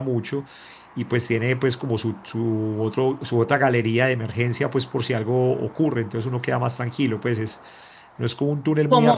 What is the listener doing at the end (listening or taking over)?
listening